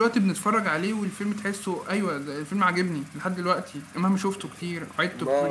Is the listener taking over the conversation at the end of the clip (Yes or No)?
Yes